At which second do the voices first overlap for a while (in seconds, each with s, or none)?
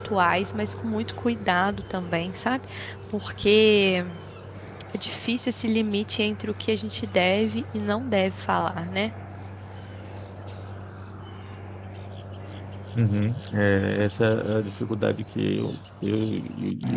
none